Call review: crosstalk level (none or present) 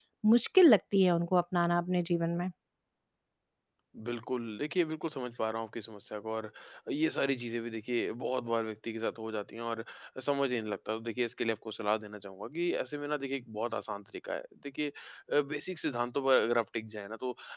none